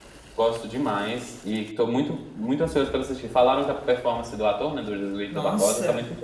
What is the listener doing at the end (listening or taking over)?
taking over